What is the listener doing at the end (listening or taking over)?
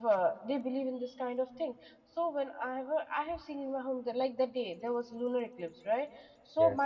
listening